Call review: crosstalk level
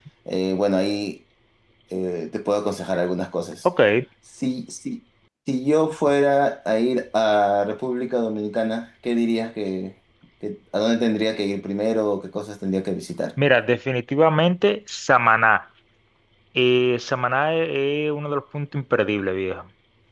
none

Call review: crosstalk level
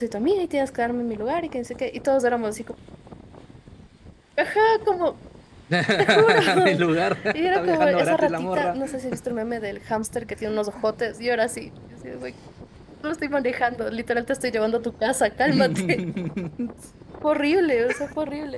present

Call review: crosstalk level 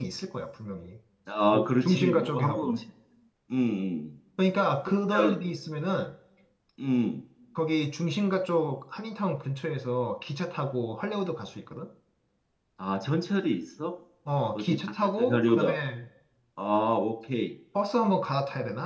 present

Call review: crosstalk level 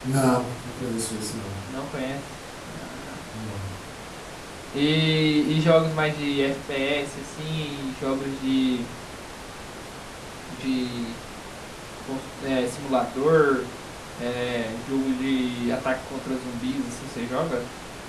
none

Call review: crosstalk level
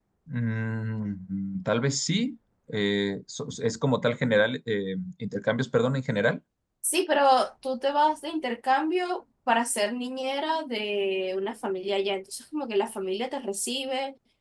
none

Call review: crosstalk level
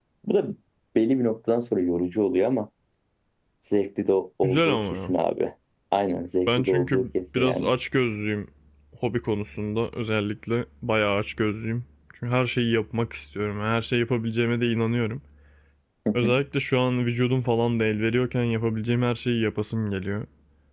present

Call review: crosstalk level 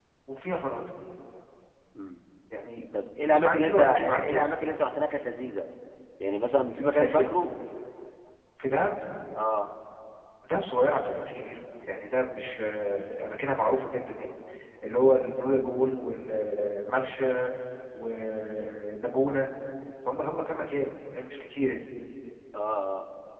present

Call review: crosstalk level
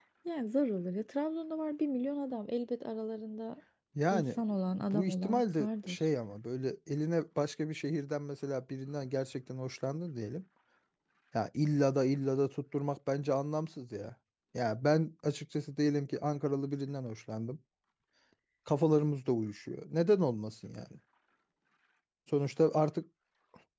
present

